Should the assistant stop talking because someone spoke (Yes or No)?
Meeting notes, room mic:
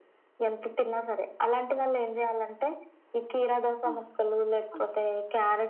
Yes